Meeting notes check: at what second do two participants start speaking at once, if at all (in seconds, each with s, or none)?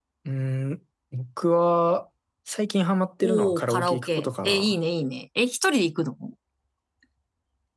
3.2 s